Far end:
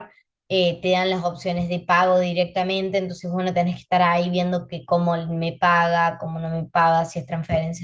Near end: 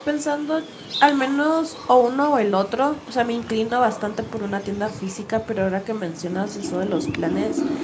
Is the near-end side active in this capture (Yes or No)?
Yes